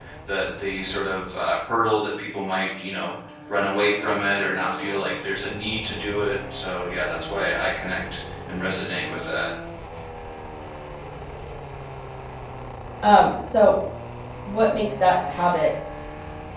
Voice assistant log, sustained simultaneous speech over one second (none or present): none